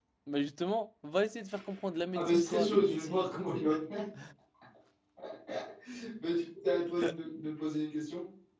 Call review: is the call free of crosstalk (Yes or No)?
No